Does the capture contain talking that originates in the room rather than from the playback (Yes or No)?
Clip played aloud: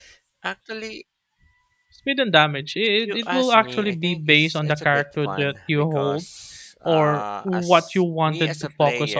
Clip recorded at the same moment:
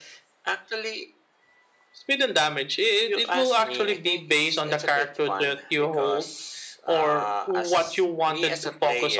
No